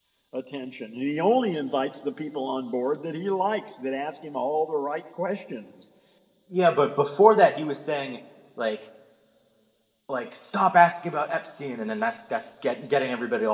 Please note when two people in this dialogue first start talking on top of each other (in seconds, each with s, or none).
none